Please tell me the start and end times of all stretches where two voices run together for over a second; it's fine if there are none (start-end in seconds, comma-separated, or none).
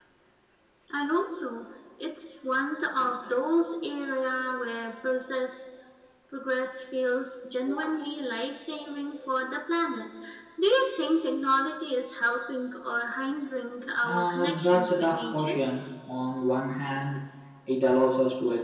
14.0-15.6